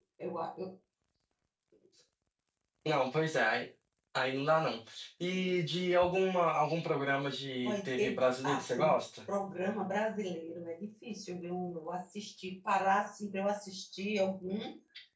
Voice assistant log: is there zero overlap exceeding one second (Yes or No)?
No